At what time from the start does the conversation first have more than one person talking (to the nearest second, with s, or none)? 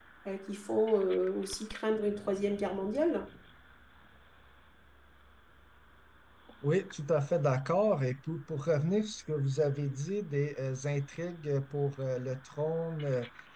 none